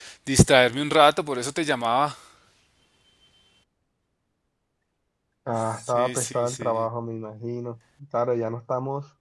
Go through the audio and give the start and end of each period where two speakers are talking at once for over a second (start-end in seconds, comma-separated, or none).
5.6-6.9